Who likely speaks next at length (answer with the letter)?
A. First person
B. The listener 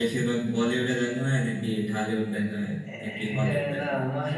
B